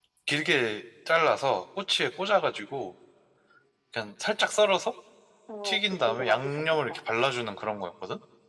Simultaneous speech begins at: 5.6 s

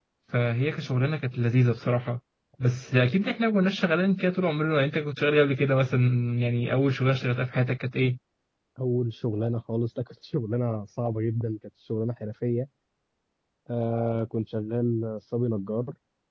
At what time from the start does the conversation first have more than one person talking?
none

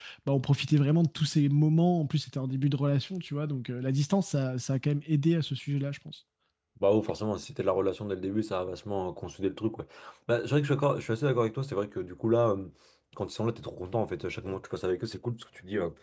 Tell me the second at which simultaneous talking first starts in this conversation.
none

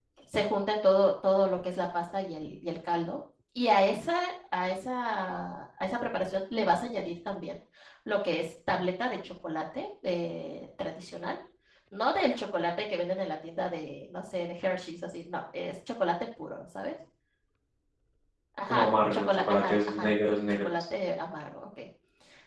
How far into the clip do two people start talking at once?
18.6 s

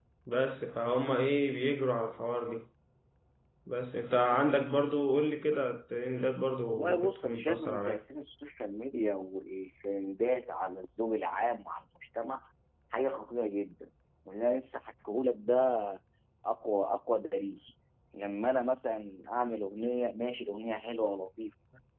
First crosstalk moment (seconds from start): 6.7 s

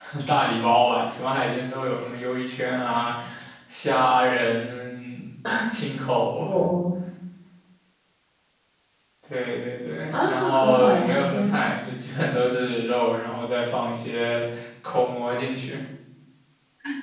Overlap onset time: 10.1 s

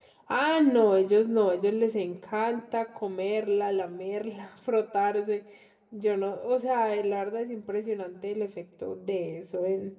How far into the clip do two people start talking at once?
none

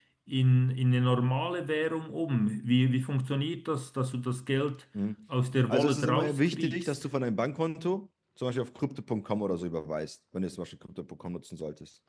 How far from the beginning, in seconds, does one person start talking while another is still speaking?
5.7 s

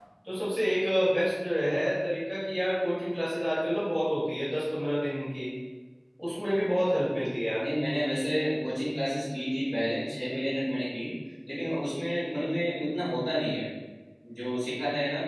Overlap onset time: none

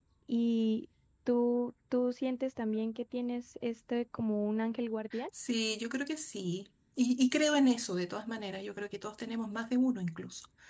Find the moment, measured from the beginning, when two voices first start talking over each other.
none

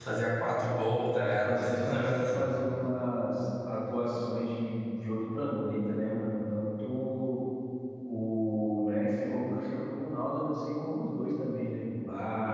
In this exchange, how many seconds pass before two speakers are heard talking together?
1.2 s

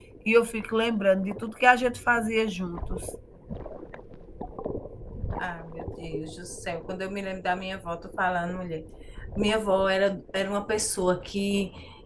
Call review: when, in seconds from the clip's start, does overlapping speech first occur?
none

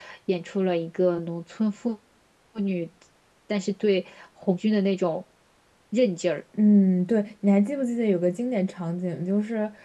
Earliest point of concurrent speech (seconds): none

